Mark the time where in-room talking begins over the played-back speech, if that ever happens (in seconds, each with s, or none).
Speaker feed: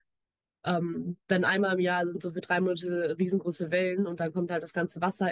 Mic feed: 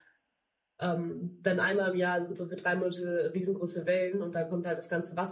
none